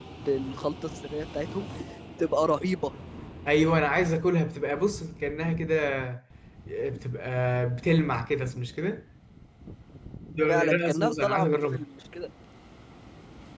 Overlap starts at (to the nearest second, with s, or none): 10 s